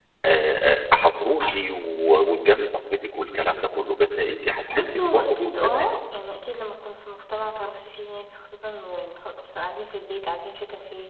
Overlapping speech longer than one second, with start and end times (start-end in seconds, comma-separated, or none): 4.7-6.0